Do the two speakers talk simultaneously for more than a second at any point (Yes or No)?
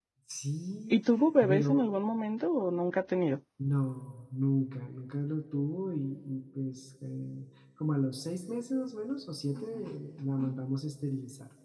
No